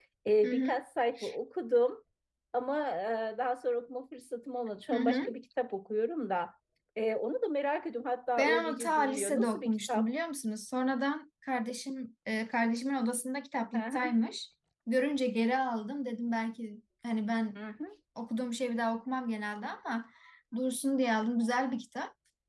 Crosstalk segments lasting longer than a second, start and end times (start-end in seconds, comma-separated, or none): 8.4-10.1